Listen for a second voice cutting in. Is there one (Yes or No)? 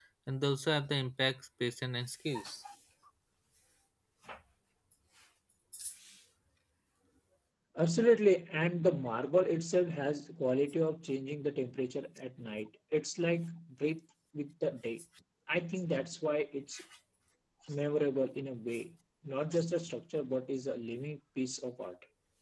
No